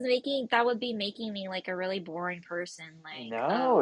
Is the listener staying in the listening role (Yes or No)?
No